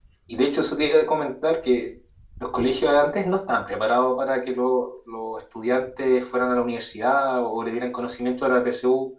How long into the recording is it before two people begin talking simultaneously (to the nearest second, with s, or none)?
none